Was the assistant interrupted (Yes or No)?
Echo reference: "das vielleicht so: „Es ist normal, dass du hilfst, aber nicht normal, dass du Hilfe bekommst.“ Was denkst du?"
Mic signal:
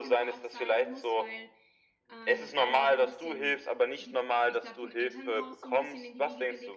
Yes